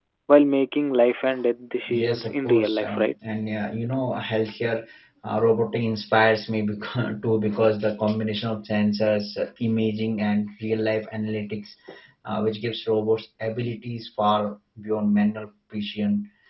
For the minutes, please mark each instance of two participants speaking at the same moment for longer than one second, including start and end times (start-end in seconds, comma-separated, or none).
1.9-3.1